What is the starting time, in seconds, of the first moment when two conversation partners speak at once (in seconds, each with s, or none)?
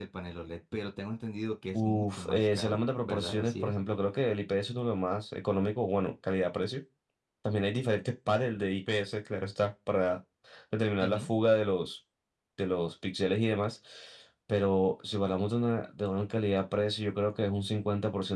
1.8 s